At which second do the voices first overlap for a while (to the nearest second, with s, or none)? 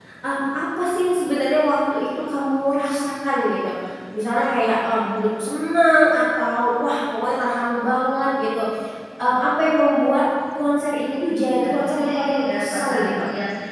11 s